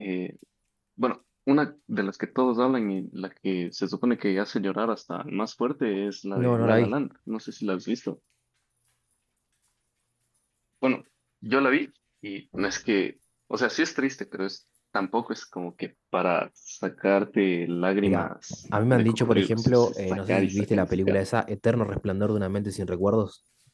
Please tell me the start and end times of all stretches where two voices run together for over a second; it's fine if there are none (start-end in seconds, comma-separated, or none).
18.9-21.2